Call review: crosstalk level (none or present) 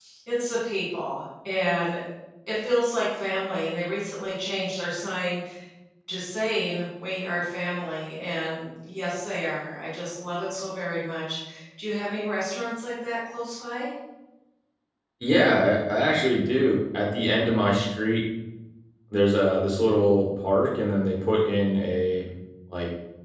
none